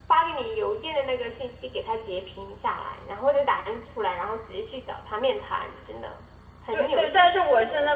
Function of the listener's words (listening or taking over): taking over